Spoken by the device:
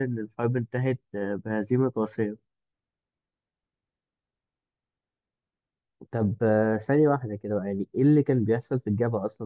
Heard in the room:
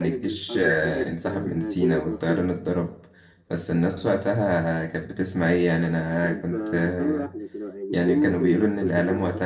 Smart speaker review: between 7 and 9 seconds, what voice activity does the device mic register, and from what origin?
both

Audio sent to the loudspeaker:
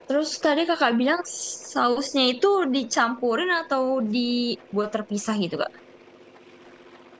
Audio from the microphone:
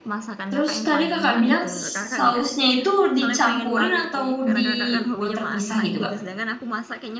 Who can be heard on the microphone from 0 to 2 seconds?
both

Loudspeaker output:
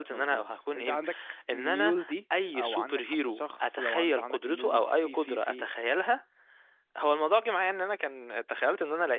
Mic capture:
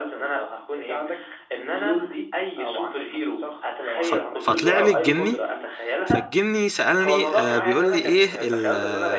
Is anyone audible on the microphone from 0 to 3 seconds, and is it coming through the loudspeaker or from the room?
echo only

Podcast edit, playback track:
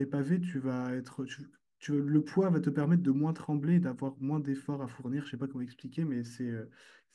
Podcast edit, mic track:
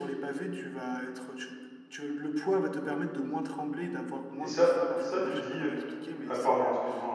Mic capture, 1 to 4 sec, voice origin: echo only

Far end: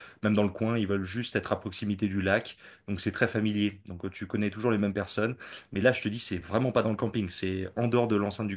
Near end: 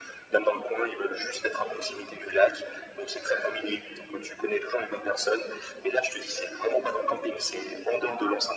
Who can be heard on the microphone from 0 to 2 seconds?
echo only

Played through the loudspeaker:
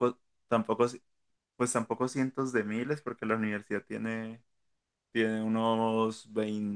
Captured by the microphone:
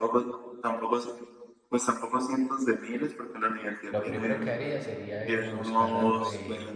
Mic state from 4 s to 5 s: both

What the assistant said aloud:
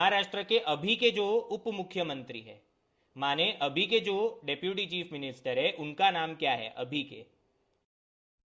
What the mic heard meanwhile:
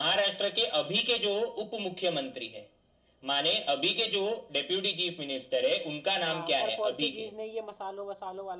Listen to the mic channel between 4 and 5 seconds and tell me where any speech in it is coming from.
echo only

